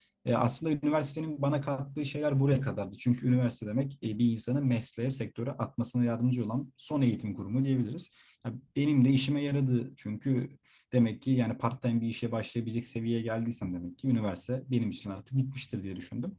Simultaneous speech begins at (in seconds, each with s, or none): none